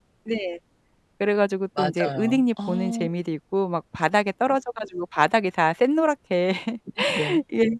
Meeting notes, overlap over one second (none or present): present